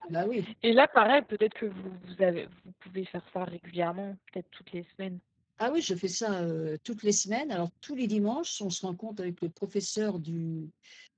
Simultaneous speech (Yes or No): No